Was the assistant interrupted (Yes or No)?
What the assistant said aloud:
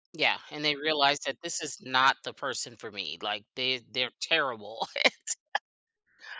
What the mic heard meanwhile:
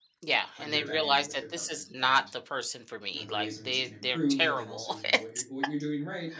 Yes